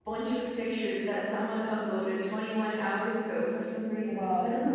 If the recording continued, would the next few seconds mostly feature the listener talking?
Yes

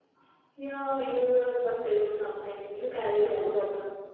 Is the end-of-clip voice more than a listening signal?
Yes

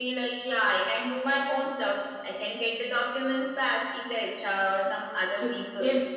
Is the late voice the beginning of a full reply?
Yes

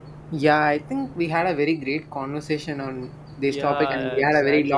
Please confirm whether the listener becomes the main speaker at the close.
Yes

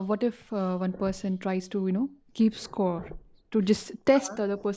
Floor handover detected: No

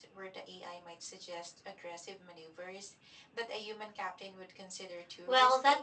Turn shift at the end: Yes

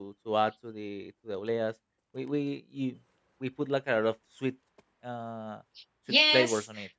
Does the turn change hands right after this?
Yes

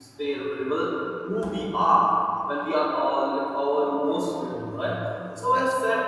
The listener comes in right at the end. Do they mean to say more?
No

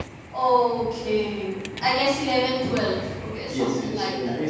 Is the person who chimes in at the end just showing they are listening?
No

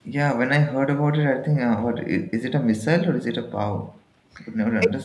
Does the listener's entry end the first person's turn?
Yes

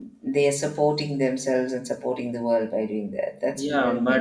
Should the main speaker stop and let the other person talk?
Yes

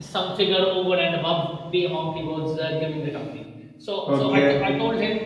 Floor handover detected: No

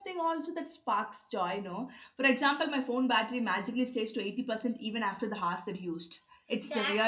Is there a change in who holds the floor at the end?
Yes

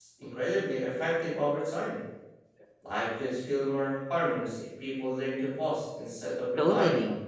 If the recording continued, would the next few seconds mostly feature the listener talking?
Yes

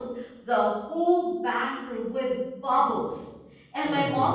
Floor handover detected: No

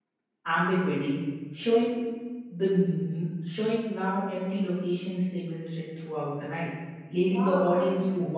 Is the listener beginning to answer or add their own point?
Yes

